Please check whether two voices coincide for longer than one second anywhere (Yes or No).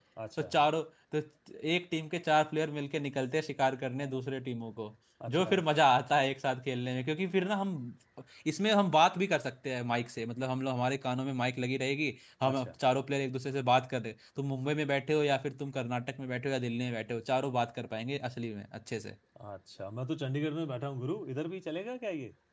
No